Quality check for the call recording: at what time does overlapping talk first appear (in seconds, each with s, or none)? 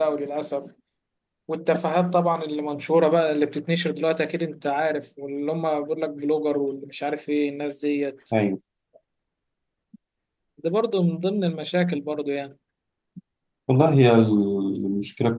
none